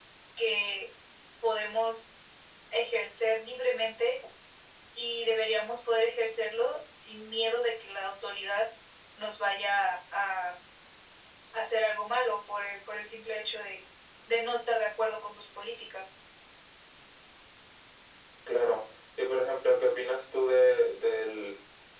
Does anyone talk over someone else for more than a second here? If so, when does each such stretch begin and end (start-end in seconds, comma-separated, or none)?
none